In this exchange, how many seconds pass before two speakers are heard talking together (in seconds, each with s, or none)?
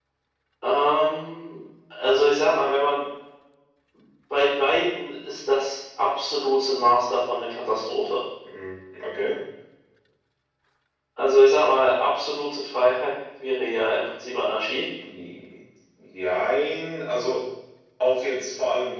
none